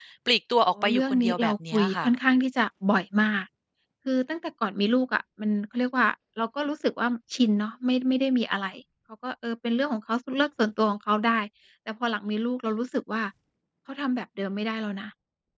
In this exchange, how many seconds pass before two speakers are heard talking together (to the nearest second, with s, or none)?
1 s